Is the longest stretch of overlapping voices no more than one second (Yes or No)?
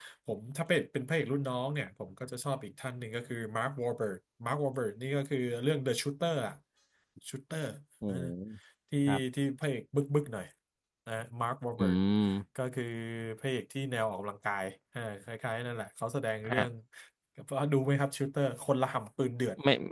Yes